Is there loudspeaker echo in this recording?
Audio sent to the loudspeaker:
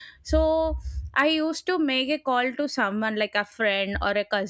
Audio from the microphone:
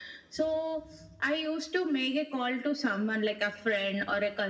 Yes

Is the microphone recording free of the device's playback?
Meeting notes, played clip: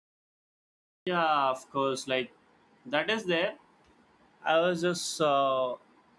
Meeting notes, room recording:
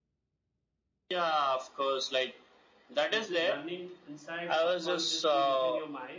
No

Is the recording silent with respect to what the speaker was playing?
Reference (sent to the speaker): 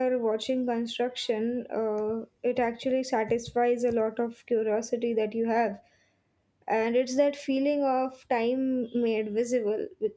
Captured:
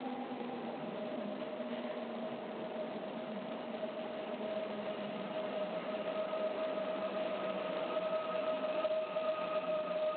Yes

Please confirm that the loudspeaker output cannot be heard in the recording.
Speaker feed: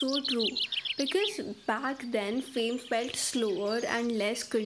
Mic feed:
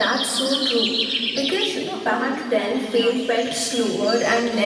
No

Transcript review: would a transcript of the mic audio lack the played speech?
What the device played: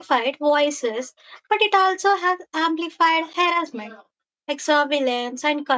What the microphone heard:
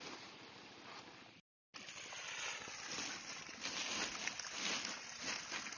Yes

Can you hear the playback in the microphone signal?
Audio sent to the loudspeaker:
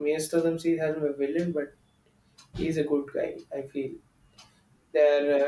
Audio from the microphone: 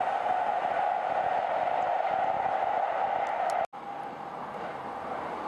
No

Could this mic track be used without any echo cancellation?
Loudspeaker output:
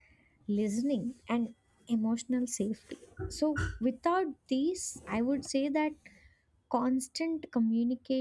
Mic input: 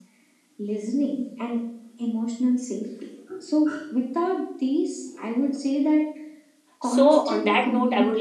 No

